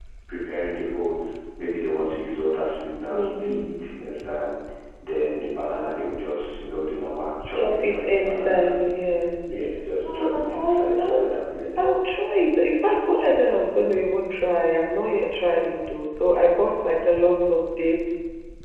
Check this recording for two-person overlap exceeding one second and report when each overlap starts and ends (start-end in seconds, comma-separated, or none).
7.6-8.8, 10.1-11.3